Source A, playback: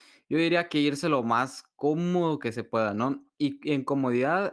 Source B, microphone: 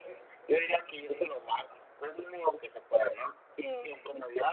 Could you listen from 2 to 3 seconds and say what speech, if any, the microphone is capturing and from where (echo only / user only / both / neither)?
echo only